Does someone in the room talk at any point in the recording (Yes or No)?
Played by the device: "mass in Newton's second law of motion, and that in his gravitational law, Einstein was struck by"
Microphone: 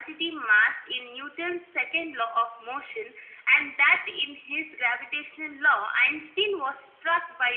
No